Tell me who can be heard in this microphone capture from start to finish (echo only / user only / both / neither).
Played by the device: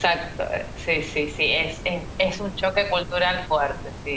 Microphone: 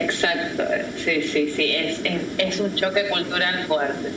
echo only